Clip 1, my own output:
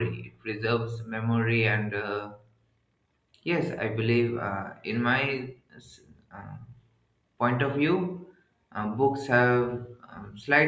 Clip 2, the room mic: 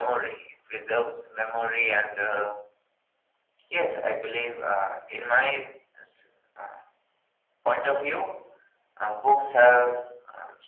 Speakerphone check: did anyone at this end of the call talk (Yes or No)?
No